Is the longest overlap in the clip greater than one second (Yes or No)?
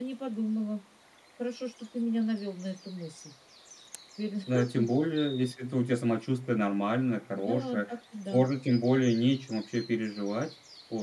No